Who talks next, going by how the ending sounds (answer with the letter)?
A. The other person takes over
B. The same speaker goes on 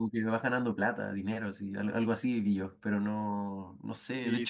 A